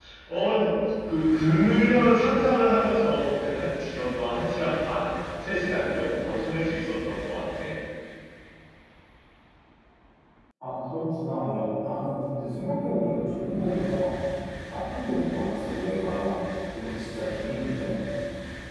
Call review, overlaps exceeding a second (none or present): none